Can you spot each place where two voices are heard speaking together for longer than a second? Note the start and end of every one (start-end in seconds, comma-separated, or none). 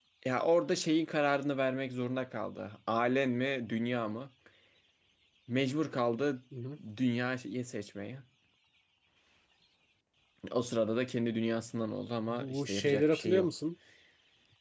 12.3-13.5